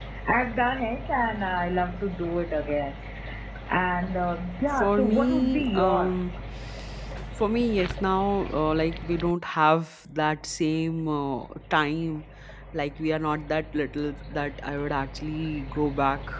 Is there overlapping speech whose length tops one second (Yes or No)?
Yes